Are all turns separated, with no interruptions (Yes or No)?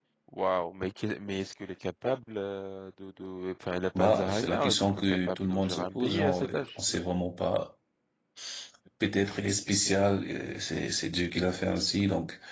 No